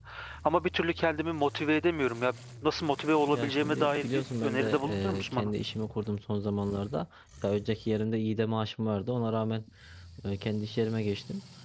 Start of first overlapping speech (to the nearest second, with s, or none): 3 s